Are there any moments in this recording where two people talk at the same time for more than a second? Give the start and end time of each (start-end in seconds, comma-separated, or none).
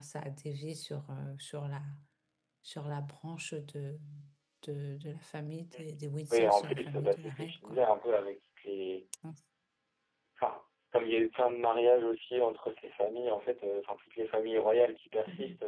6.3-7.8